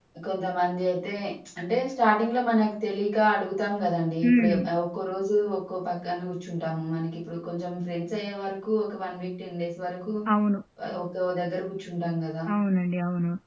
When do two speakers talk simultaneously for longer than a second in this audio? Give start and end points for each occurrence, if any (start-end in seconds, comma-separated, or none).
none